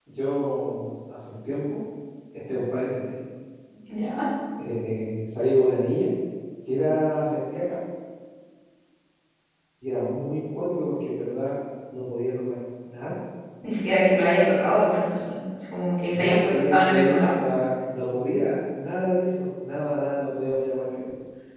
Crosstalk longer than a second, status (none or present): present